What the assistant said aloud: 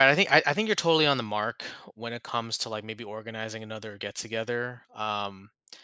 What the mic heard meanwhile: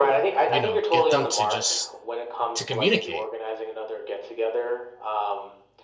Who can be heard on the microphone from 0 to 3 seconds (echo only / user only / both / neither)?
both